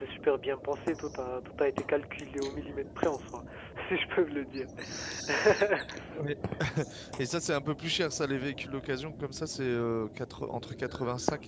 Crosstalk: none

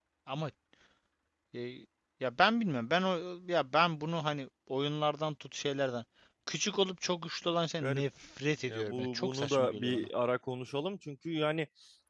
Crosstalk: present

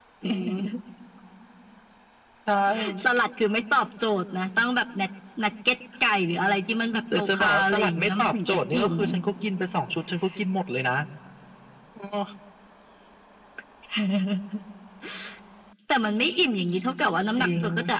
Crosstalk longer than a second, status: present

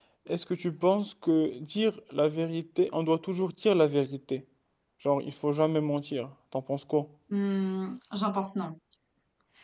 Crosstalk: none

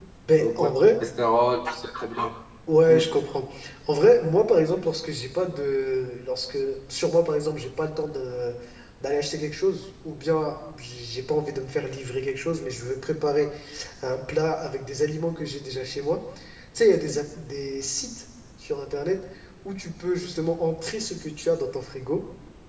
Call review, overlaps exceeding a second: none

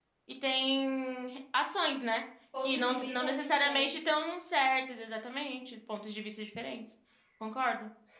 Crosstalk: present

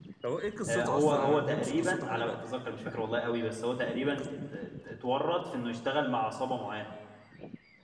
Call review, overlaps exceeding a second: present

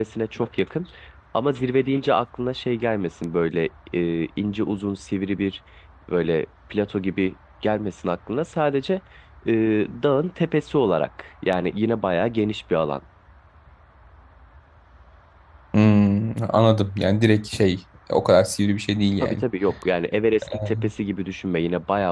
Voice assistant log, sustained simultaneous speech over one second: none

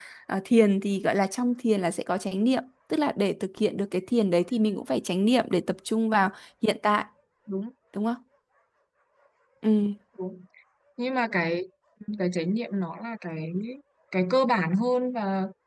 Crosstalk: none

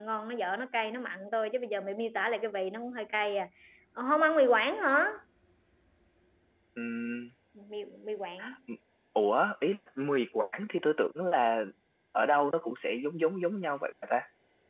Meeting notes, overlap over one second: none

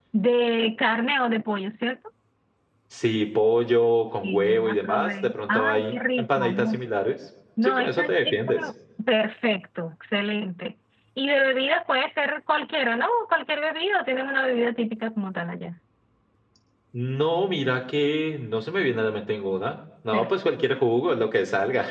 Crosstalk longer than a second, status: present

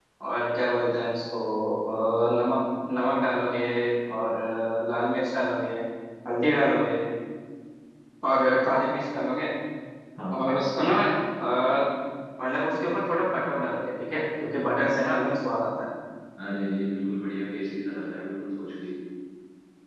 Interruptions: none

